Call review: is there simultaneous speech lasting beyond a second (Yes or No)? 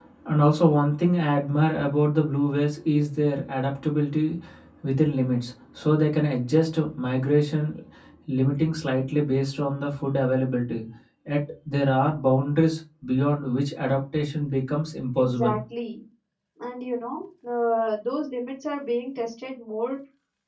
No